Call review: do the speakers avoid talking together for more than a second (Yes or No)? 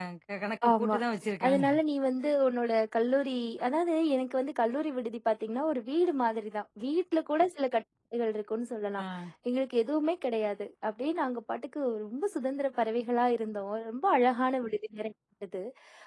Yes